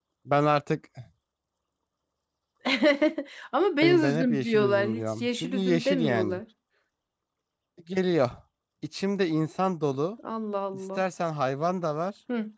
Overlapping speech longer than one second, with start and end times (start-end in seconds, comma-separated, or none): 3.8-6.4